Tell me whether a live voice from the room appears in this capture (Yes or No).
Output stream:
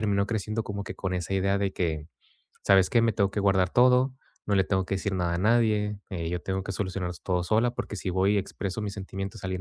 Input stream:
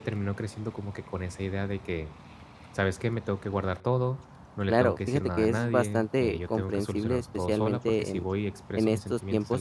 Yes